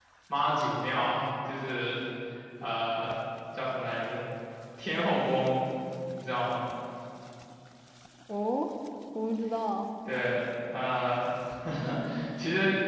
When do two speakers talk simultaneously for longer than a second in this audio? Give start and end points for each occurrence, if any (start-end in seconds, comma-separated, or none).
none